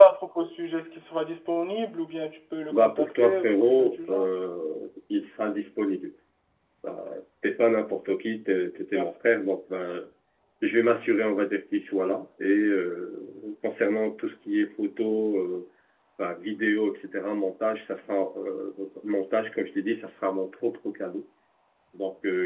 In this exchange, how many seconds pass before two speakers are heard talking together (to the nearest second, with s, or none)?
3 s